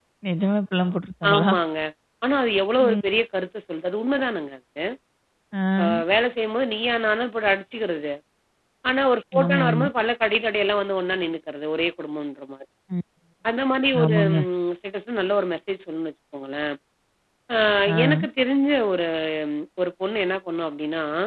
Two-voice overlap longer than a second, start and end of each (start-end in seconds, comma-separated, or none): none